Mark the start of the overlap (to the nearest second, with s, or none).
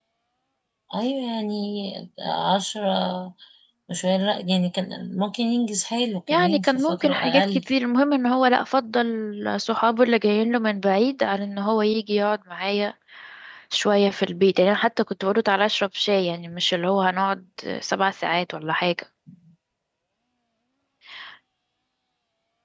6 s